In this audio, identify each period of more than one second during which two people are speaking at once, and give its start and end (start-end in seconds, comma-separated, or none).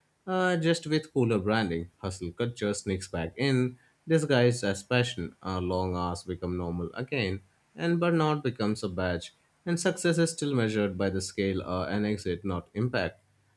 none